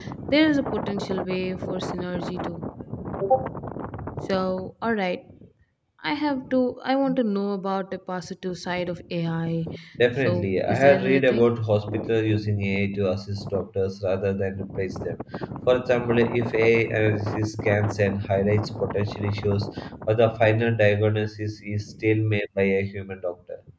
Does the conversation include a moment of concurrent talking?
Yes, from 10.2 s

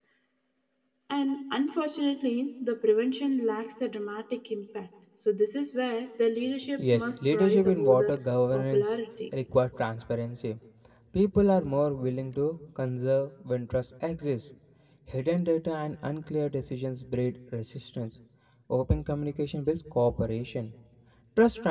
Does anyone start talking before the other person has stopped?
Yes, from 6.8 s

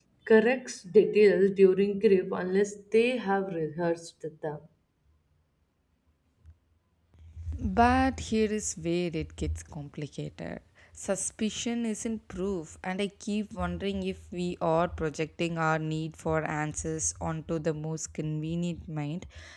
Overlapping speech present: No

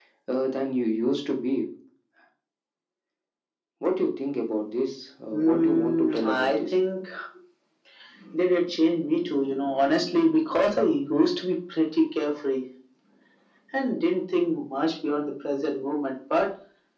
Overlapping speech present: Yes, from 5.3 s

